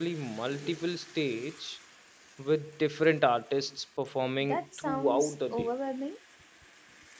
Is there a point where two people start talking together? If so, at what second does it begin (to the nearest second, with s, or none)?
4 s